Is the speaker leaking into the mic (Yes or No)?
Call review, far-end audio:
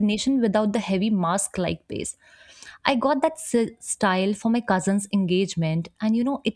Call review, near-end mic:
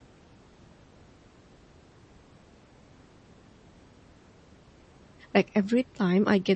No